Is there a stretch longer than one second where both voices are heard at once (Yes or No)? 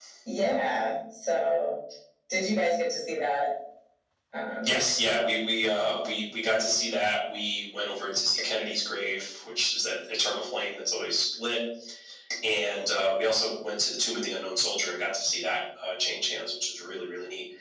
No